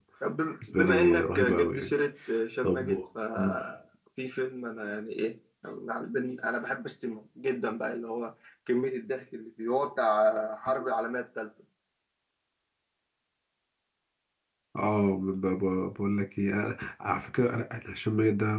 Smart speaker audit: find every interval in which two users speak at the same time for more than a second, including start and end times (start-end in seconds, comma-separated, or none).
0.7-1.9